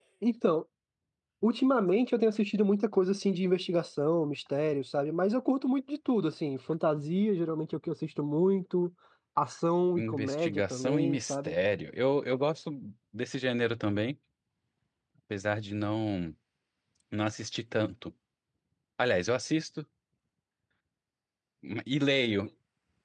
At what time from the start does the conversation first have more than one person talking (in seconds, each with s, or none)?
9.9 s